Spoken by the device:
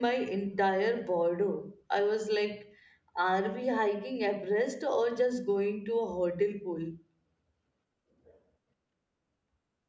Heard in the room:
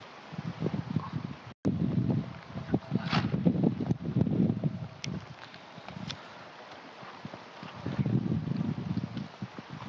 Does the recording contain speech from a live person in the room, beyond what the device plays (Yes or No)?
No